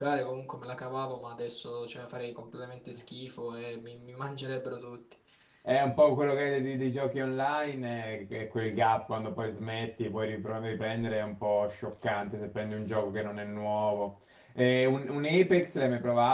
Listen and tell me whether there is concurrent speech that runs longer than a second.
No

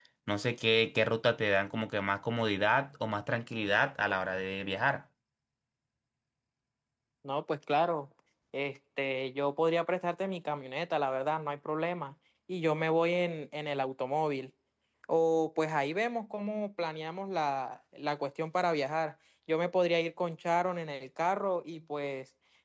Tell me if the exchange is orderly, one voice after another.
Yes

